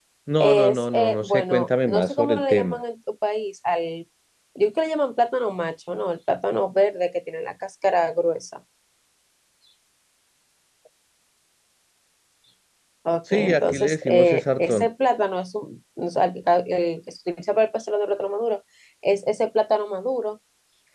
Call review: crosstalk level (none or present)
present